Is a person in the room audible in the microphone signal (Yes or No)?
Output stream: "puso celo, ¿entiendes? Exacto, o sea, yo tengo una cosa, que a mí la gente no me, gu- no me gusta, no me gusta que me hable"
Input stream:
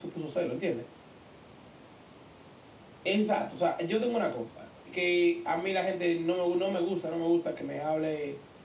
No